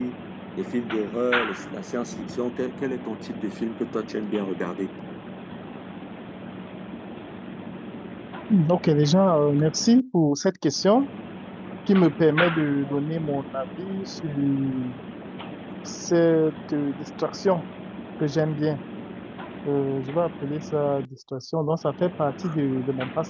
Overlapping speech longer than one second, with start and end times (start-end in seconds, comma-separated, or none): none